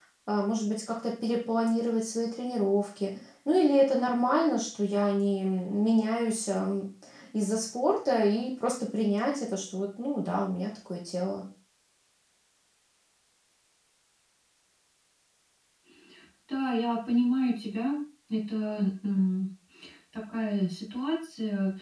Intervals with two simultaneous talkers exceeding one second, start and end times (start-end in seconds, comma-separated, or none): none